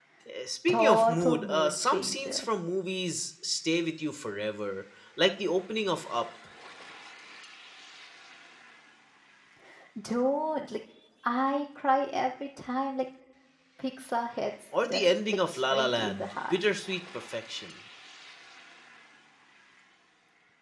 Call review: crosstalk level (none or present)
present